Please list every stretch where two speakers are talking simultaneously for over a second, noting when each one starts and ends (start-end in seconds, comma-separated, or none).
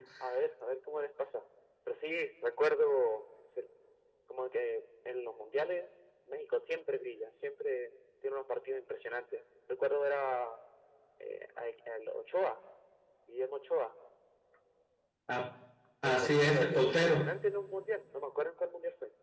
16.0-17.3